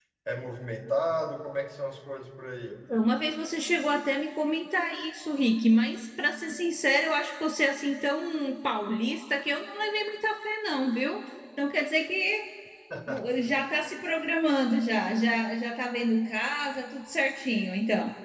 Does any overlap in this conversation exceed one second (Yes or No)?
No